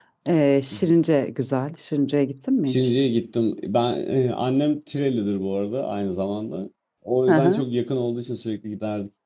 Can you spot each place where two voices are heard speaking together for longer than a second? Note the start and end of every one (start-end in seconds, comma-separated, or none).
none